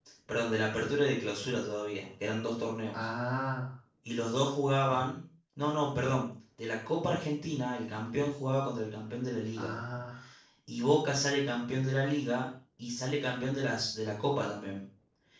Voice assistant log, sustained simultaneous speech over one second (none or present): none